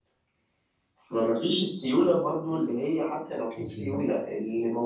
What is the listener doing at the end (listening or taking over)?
listening